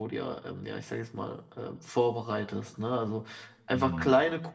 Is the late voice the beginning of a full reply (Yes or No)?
No